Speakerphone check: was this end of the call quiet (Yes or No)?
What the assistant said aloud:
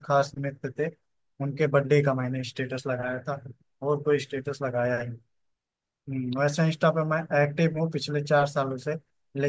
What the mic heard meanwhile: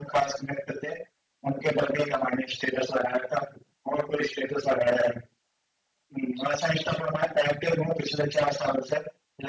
Yes